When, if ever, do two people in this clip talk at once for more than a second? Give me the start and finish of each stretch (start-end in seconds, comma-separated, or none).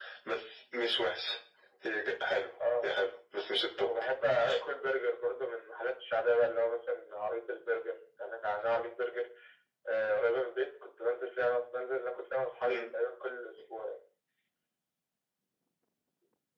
none